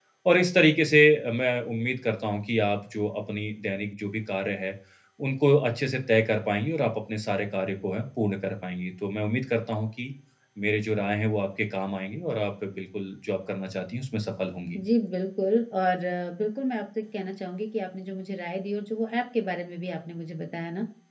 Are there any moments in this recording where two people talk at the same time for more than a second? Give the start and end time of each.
none

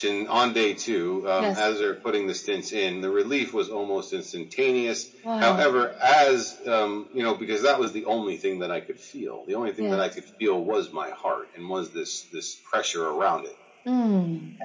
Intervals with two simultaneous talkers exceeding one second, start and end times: none

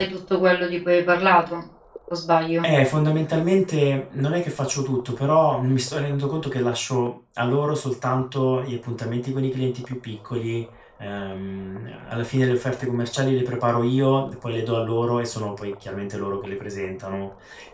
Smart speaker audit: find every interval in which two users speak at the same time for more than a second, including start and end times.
none

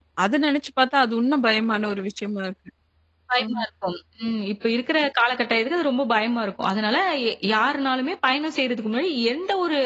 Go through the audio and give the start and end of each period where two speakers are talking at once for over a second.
none

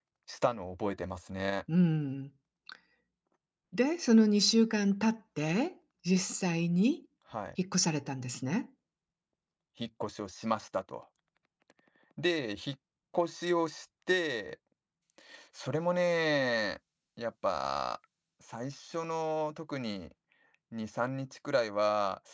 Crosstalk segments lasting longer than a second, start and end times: none

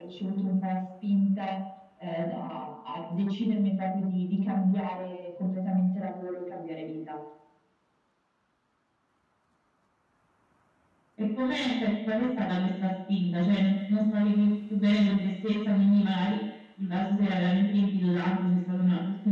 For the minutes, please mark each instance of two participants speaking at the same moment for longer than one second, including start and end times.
none

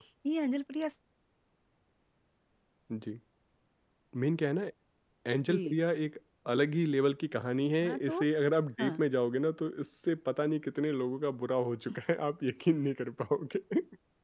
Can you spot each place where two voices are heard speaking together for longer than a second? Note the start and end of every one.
none

